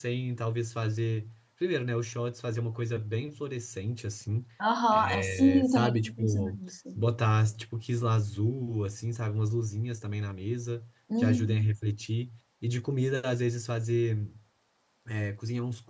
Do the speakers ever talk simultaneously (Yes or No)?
Yes